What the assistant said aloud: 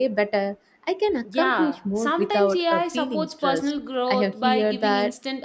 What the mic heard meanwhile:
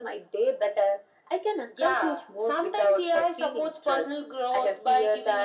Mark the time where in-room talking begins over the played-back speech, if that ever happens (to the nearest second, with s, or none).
none